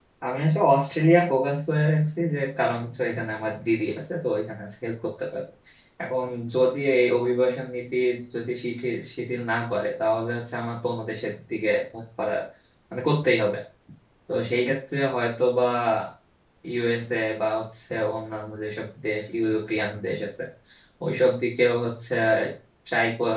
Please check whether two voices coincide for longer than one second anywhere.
No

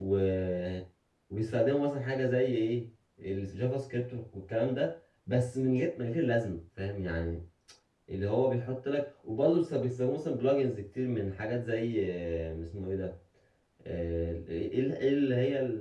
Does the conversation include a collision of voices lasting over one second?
No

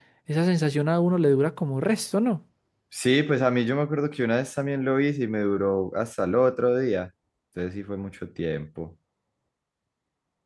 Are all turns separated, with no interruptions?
Yes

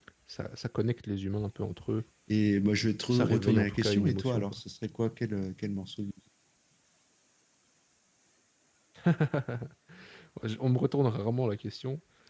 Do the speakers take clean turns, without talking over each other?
No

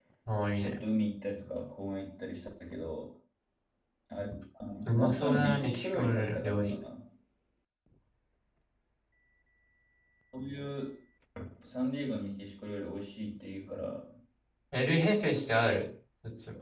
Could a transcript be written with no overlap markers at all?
No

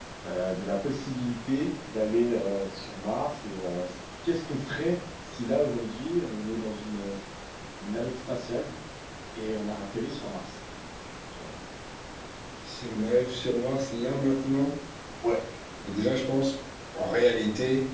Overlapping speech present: No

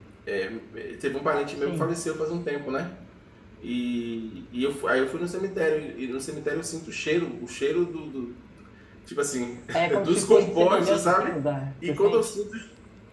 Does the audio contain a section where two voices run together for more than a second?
Yes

